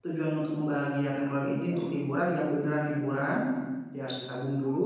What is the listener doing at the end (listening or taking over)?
listening